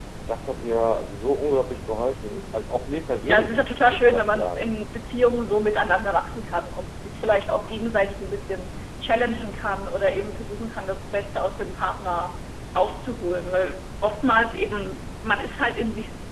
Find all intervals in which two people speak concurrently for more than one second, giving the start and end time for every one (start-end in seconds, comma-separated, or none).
3.2-4.8